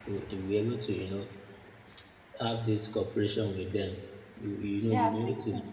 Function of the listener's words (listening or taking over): taking over